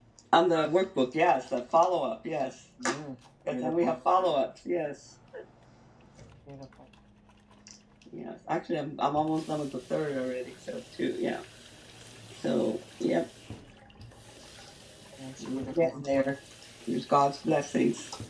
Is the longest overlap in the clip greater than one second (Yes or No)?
No